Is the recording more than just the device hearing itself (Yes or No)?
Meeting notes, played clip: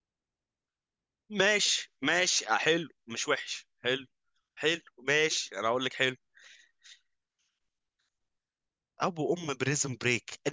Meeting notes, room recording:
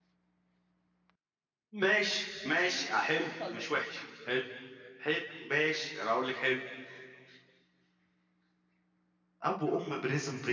Yes